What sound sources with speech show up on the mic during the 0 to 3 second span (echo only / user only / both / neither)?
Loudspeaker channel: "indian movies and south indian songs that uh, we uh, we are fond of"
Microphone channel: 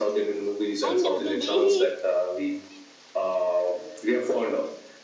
both